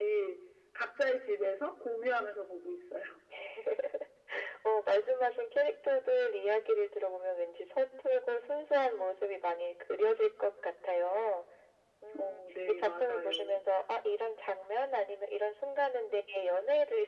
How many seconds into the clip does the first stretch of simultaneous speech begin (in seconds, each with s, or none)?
12.2 s